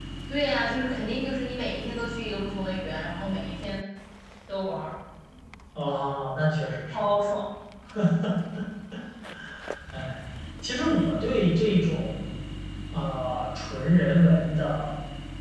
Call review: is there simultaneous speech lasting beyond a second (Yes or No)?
No